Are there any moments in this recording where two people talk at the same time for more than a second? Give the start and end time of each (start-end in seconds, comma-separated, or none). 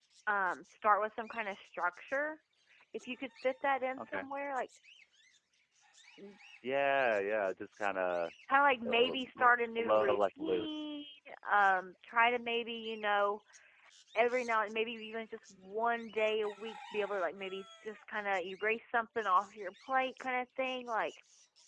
8.8-11.0